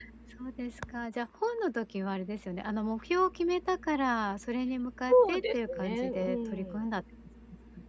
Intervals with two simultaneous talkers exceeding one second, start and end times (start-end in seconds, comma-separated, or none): 5.1-6.9